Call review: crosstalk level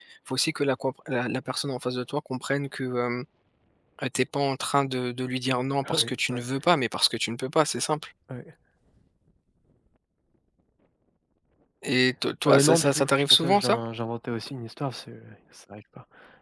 present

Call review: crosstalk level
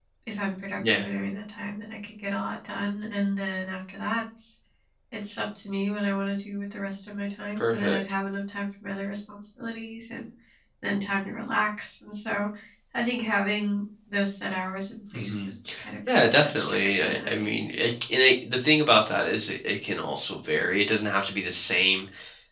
present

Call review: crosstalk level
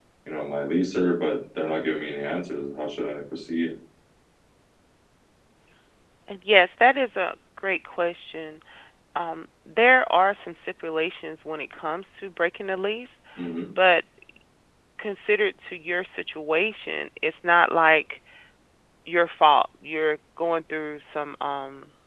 none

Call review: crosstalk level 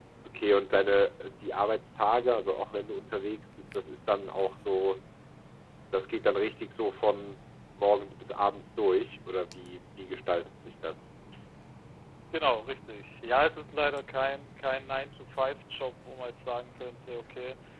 none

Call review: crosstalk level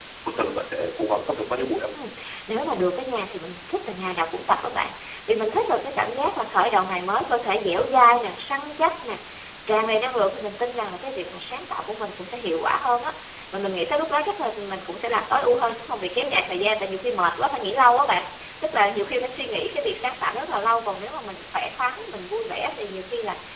none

